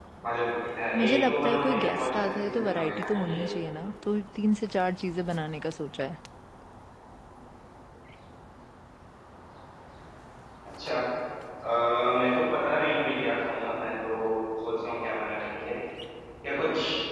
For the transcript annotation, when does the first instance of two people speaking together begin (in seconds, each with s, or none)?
1.0 s